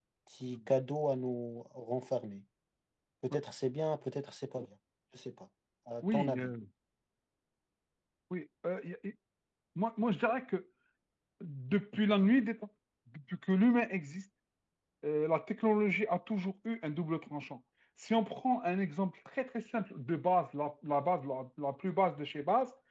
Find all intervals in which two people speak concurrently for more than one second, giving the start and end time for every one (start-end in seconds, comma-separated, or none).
none